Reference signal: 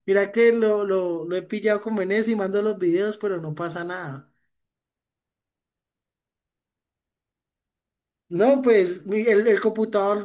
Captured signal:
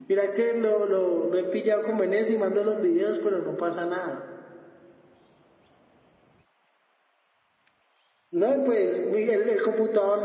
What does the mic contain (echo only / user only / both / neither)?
echo only